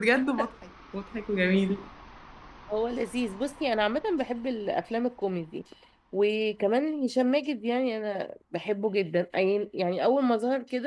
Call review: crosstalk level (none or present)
none